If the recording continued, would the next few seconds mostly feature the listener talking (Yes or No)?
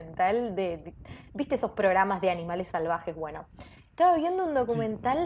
No